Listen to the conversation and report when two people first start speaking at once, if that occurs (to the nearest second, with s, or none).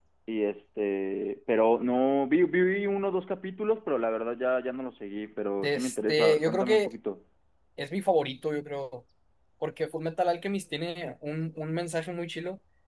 6 s